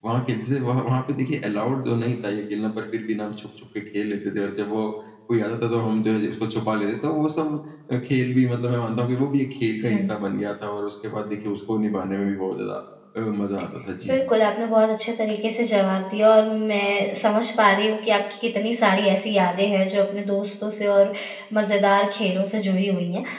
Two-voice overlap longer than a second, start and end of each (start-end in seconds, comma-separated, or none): none